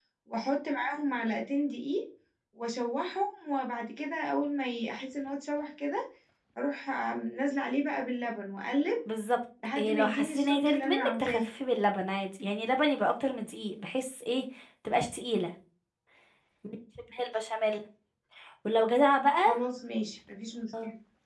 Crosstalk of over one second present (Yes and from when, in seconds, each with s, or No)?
Yes, from 9.8 s